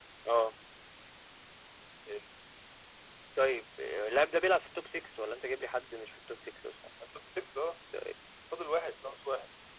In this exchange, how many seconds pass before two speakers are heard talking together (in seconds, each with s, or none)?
none